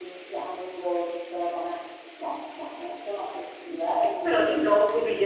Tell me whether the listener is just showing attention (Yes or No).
No